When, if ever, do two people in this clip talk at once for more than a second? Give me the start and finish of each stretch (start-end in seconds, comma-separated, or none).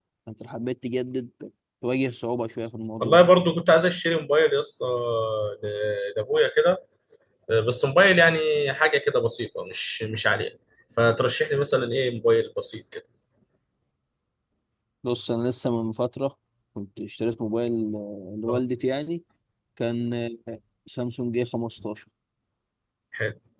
none